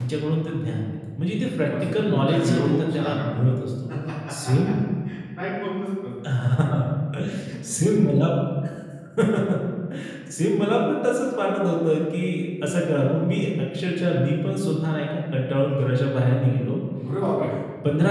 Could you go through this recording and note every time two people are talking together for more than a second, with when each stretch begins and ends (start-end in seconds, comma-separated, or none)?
1.8-3.5